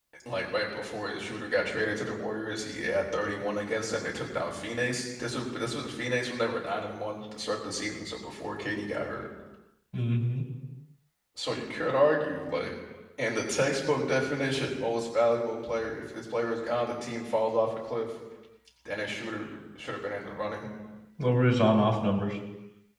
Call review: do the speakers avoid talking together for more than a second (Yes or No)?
Yes